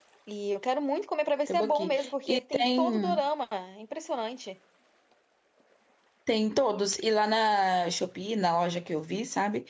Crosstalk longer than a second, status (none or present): present